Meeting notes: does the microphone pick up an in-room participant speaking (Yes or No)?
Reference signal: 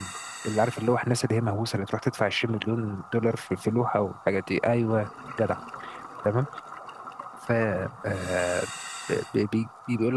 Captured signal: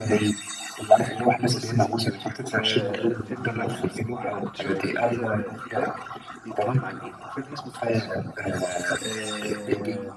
Yes